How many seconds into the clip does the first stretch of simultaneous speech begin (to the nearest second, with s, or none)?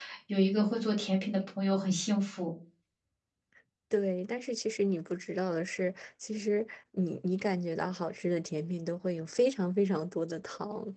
none